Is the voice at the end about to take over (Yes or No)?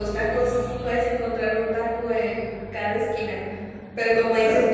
No